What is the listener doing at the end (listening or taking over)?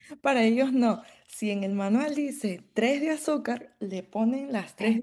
listening